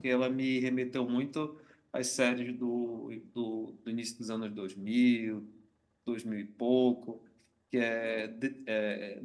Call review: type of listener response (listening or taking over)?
listening